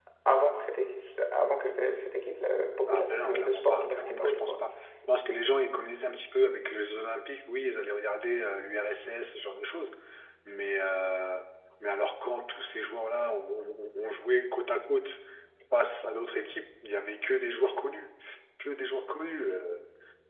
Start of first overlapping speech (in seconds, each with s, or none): 2.9 s